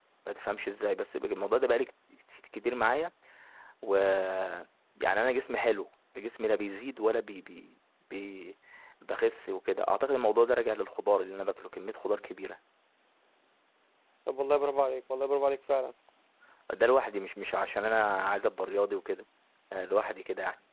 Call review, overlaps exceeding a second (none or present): none